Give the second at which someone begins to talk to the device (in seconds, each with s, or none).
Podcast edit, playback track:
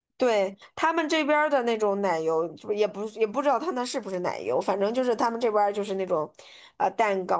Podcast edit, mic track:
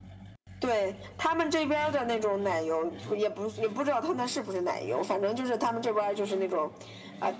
none